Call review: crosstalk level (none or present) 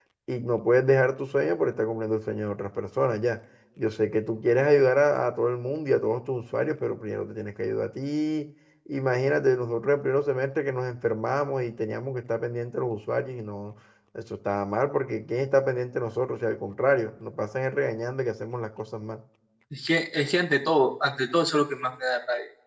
none